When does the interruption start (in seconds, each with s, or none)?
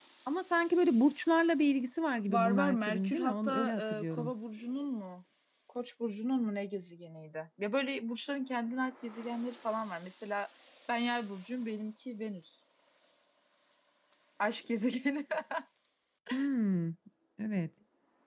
2.3 s